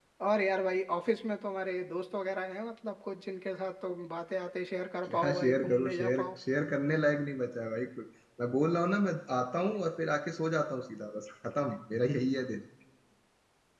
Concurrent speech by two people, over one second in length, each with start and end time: 5.0-6.2

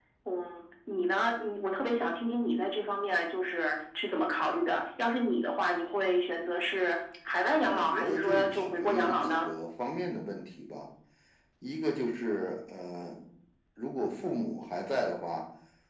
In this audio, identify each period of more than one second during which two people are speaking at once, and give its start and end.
7.7-9.5

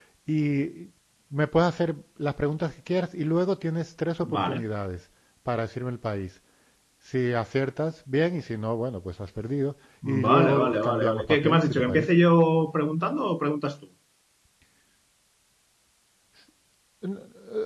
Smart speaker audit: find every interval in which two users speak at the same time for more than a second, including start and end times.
10.1-12.1

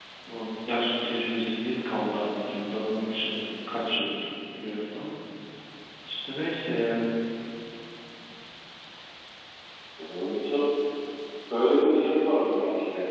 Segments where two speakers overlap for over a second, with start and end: none

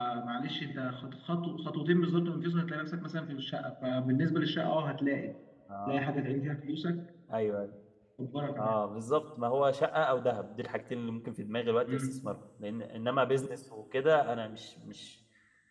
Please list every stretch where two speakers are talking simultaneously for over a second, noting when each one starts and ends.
none

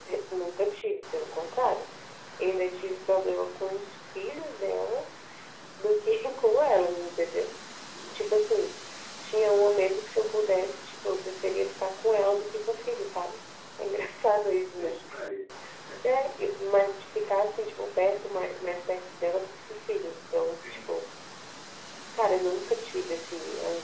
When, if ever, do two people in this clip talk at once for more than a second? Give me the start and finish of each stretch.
none

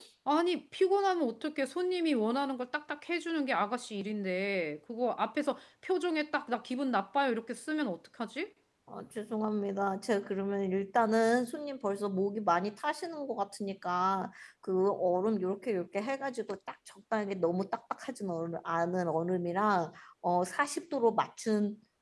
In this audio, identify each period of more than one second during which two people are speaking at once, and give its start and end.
none

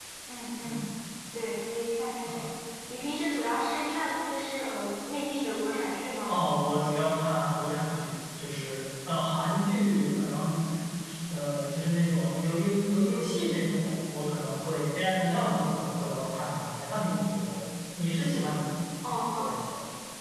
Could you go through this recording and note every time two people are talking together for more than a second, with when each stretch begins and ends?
none

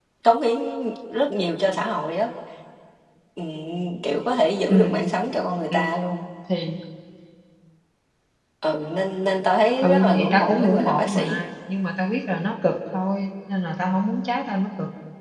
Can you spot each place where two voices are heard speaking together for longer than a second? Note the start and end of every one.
9.8-11.4

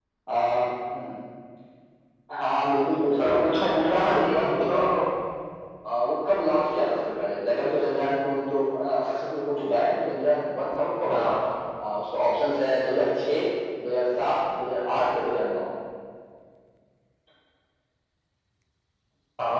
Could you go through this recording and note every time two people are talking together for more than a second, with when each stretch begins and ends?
3.2-4.8

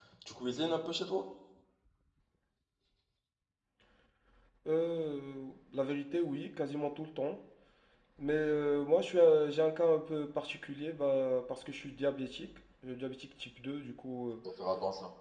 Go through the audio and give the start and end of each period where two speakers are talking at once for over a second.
none

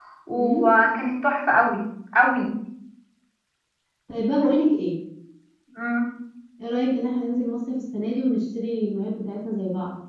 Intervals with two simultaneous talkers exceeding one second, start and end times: none

